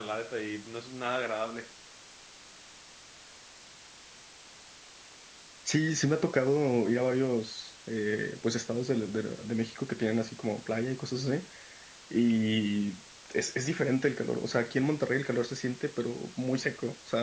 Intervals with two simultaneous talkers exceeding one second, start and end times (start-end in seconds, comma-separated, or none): none